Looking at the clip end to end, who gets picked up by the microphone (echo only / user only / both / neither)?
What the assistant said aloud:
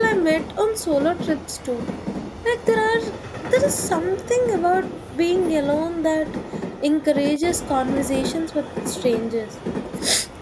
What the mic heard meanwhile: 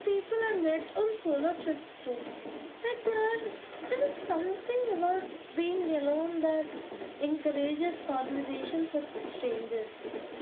echo only